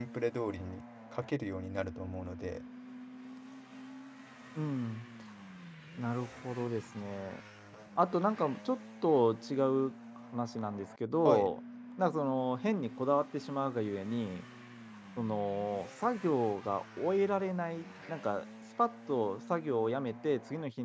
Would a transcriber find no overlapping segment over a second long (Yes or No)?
Yes